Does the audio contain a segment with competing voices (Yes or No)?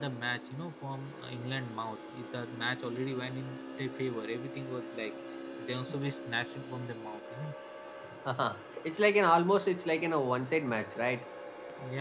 No